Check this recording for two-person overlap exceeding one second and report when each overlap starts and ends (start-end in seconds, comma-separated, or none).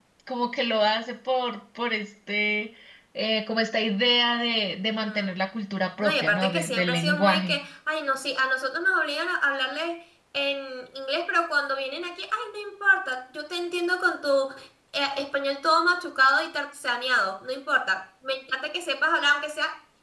6.0-7.6